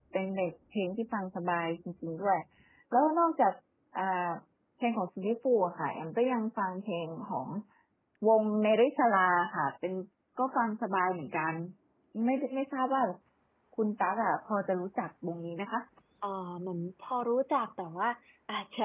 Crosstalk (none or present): none